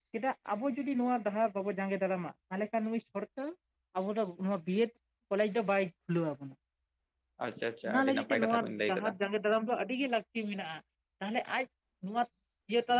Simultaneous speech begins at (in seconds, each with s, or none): 7.8 s